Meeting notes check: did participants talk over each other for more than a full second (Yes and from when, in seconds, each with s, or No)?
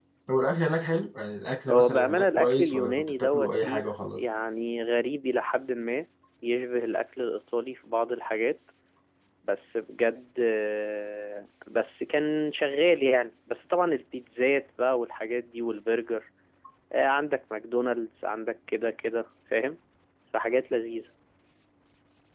Yes, from 1.7 s